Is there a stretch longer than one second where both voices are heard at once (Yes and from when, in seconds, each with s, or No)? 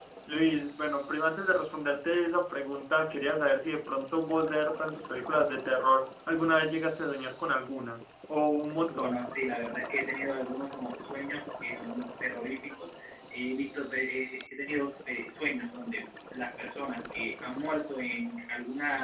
No